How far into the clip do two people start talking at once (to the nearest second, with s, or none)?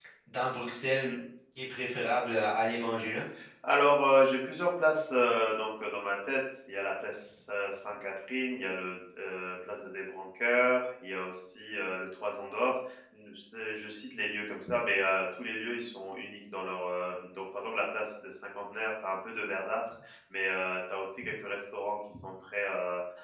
none